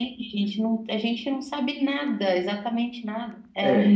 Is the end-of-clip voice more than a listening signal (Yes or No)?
Yes